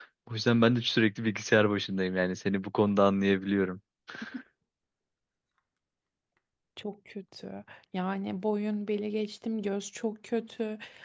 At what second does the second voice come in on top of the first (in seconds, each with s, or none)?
none